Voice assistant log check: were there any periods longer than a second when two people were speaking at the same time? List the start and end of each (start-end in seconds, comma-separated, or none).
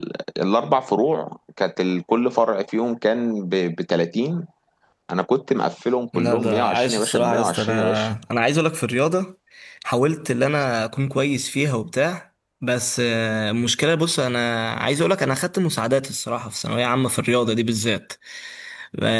6.2-8.1